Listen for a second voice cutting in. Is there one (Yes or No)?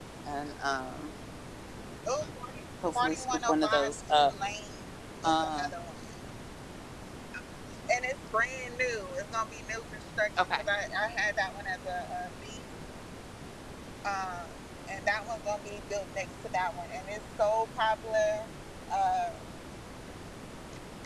Yes